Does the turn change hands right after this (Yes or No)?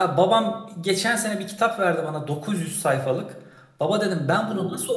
No